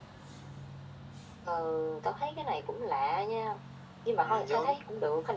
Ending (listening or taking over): listening